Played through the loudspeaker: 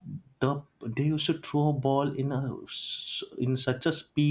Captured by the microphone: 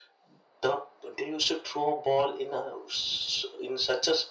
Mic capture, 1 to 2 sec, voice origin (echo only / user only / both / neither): echo only